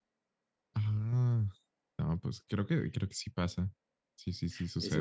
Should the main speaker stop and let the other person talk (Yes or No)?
Yes